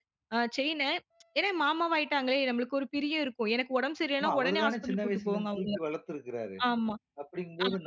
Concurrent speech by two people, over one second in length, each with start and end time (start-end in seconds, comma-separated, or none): 4.2-5.7